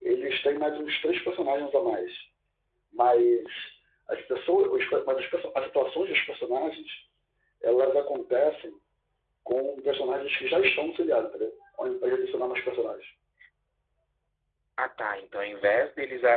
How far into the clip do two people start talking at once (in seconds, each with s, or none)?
none